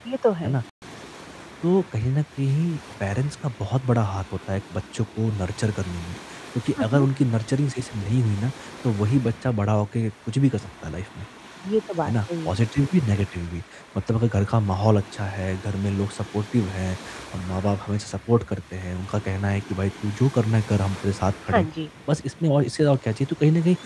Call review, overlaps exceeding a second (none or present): none